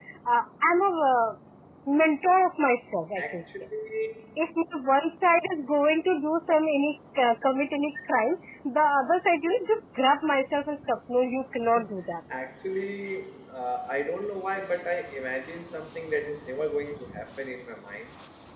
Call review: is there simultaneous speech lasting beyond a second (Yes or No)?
No